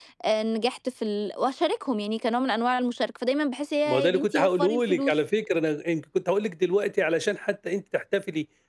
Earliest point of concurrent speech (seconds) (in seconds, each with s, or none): 3.9 s